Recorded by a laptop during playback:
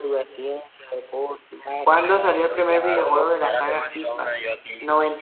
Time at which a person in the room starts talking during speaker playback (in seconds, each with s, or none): 1.8 s